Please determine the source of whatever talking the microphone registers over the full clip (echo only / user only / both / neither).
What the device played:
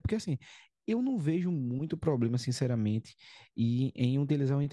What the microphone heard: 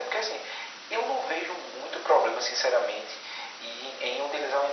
echo only